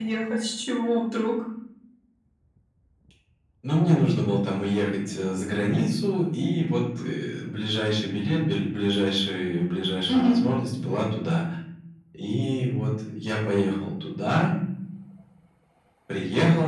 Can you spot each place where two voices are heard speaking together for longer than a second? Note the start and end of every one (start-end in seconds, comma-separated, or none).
none